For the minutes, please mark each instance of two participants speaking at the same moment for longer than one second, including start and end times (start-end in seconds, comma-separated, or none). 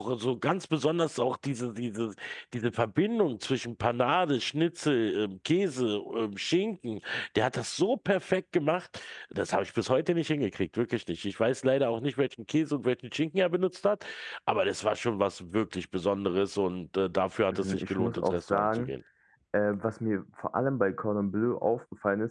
17.5-18.9